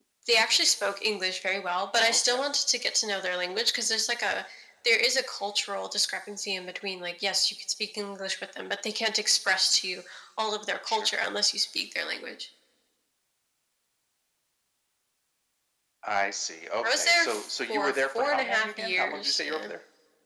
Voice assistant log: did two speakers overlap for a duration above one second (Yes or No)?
Yes